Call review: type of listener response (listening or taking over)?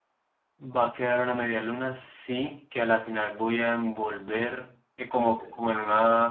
listening